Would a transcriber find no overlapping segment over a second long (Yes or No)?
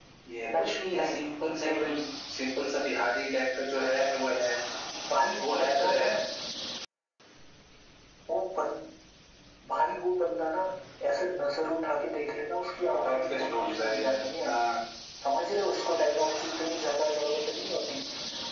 No